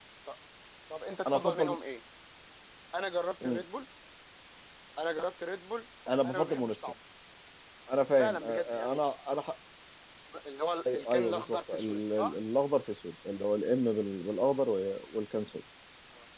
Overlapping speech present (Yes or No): Yes